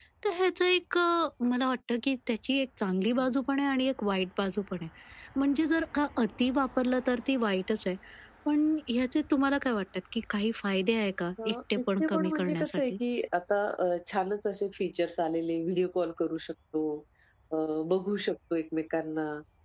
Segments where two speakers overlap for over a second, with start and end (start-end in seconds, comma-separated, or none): 11.4-12.9